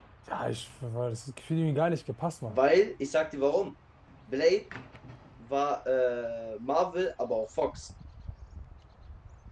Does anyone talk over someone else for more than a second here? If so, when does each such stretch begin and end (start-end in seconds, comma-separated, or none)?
none